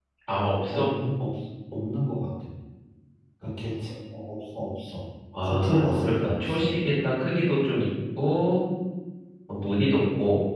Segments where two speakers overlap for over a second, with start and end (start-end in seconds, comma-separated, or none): 5.4-6.6